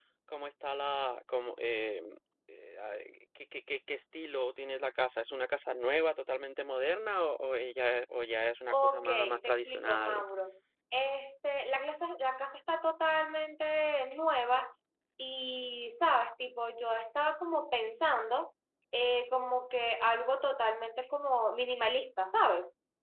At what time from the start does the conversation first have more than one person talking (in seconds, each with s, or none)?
8.7 s